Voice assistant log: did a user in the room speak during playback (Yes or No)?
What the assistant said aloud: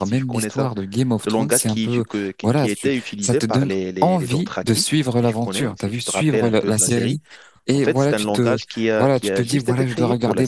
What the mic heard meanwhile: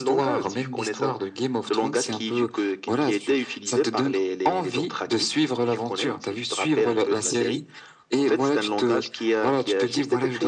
No